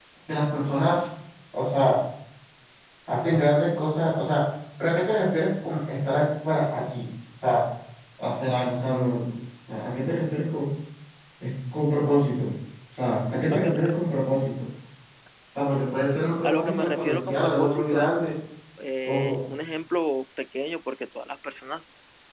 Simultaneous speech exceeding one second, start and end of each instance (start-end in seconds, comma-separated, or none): 16.4-18.1